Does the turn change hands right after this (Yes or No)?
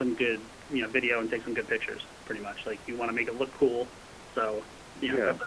No